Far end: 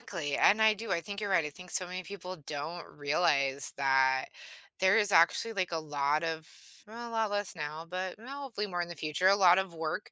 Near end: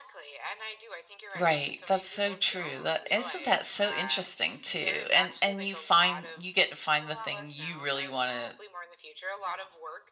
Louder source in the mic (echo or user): user